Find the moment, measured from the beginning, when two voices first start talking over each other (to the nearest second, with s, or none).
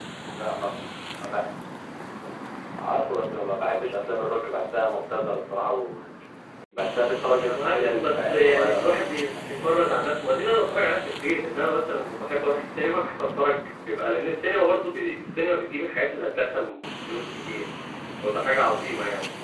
7 s